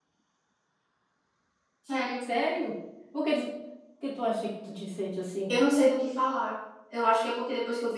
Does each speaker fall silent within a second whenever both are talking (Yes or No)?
Yes